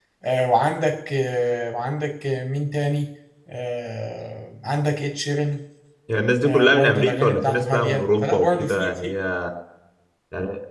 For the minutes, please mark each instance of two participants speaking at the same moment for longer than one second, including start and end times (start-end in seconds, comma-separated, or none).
6.5-9.1